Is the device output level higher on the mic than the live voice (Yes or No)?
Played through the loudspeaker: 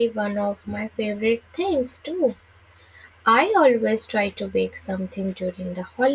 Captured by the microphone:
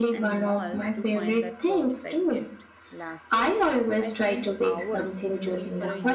Yes